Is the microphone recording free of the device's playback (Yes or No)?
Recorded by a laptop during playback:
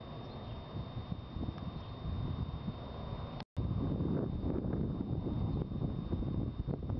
Yes